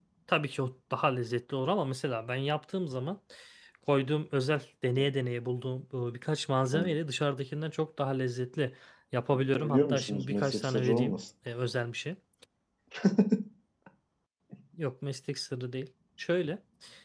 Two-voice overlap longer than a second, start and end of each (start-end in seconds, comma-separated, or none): 9.3-11.1